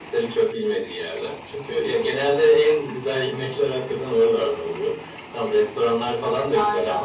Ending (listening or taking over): listening